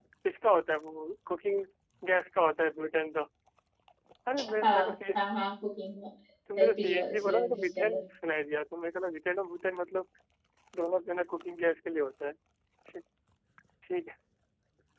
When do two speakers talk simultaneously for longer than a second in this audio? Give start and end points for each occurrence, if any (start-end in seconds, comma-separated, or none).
6.6-8.0